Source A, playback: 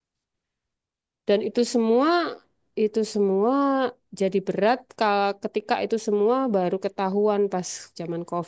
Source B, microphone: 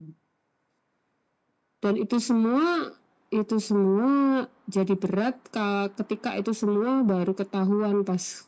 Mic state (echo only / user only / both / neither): echo only